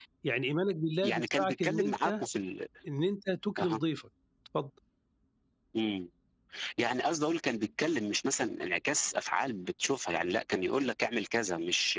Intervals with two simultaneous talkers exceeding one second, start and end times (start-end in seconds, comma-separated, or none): 1.0-2.2